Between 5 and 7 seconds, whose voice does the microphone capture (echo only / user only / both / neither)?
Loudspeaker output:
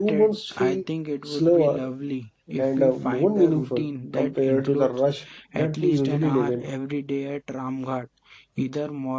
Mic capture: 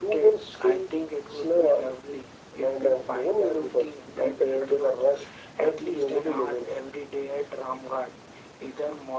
echo only